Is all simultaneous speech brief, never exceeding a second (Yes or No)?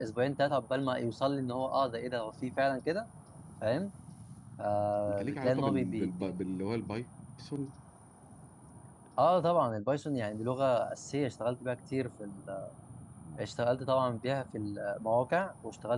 No